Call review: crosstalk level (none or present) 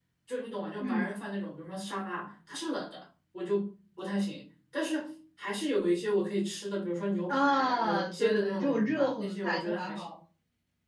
present